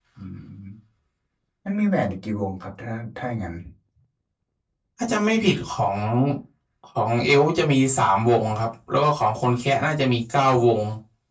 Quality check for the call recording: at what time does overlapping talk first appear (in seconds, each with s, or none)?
none